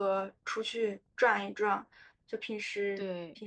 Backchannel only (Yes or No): Yes